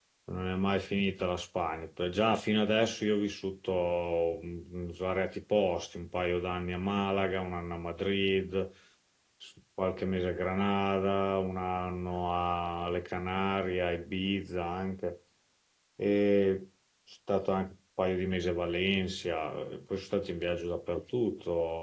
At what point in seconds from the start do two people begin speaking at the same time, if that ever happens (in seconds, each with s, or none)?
none